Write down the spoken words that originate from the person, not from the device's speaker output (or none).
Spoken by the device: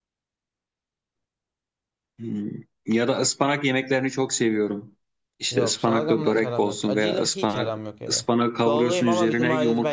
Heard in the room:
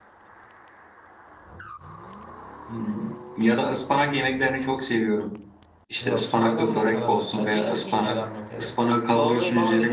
none